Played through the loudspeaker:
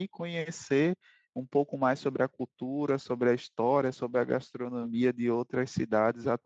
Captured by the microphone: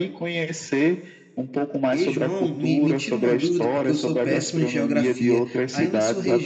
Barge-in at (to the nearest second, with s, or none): 2 s